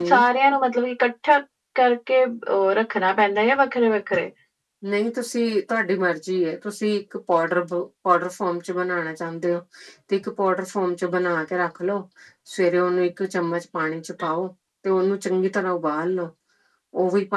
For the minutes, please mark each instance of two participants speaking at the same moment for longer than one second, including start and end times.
none

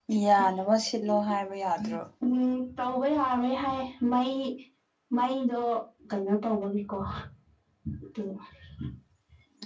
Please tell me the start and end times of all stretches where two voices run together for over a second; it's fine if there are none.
none

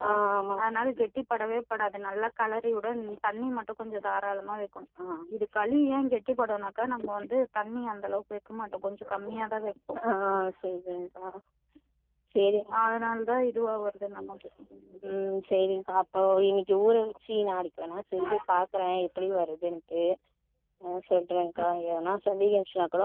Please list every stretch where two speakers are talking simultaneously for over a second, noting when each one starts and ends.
none

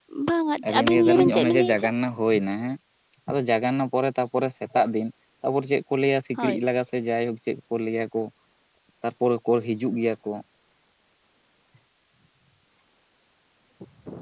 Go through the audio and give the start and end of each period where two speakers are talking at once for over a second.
0.7-1.9

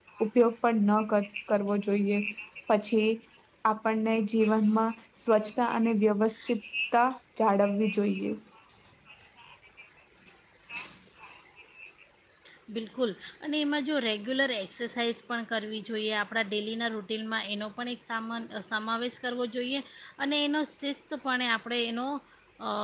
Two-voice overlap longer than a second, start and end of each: none

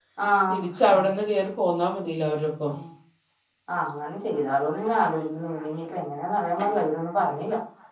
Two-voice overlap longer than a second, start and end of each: none

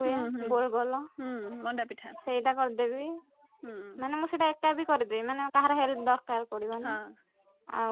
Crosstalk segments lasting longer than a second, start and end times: none

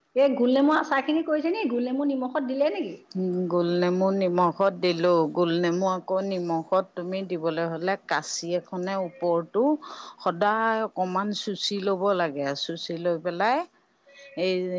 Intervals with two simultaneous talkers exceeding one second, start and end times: none

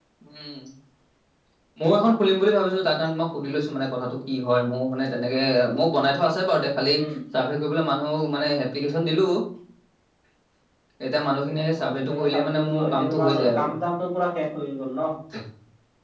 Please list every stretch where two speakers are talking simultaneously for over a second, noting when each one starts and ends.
11.8-13.8

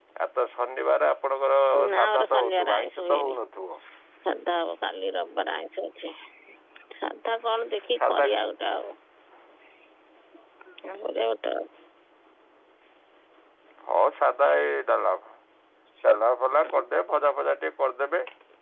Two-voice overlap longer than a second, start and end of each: 2.0-3.4

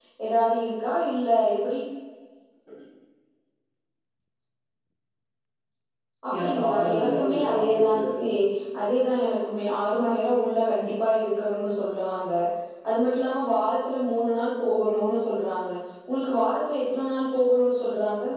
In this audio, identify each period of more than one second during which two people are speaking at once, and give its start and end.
6.4-8.3

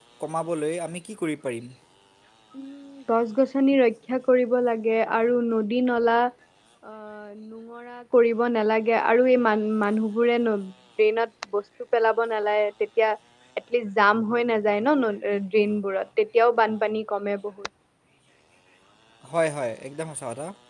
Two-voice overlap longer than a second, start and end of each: none

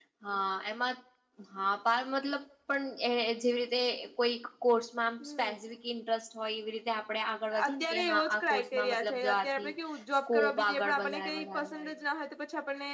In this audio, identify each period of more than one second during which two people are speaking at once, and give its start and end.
7.7-9.7, 10.3-11.9

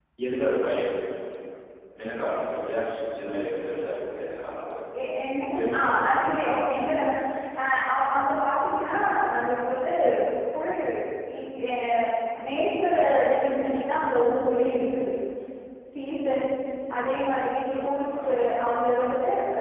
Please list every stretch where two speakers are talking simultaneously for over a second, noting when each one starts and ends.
none

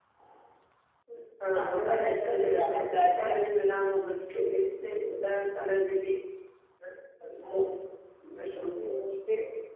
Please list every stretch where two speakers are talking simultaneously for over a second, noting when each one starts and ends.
1.6-3.3

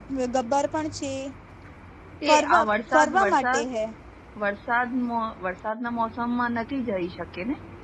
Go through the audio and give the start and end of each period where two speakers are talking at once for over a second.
2.3-3.6

